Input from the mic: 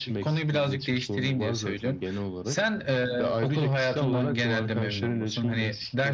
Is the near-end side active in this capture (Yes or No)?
No